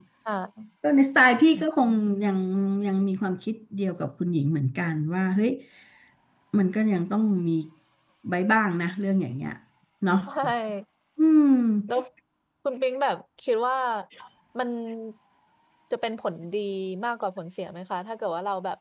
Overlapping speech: No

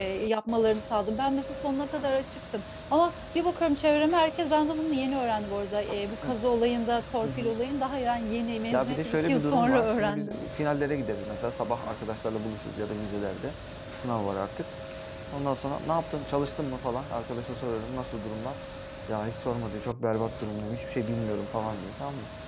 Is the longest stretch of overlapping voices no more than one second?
No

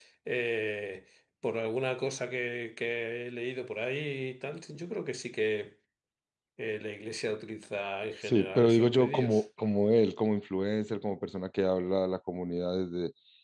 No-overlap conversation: No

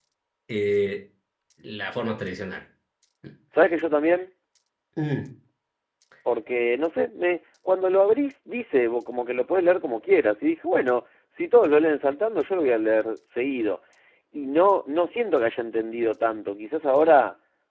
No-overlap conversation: Yes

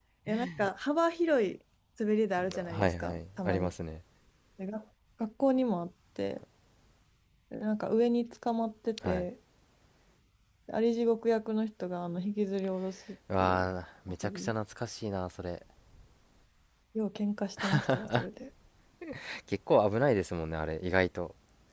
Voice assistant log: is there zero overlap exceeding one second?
No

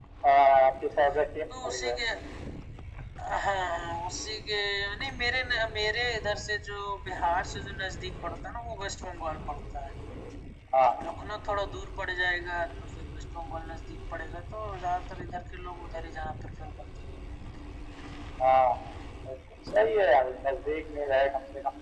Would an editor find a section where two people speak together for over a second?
No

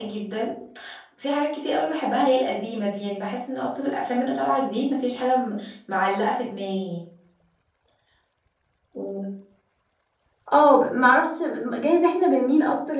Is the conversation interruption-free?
Yes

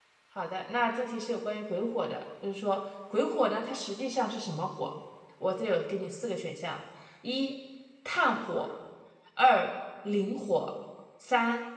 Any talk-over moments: No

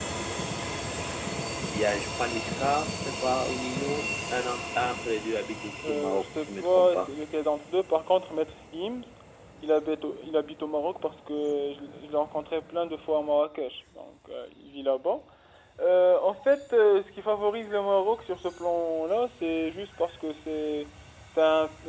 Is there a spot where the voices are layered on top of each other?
Yes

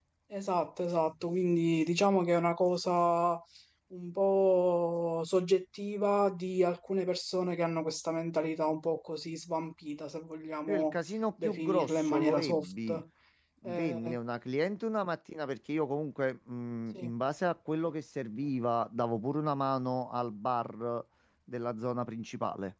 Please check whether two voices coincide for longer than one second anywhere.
Yes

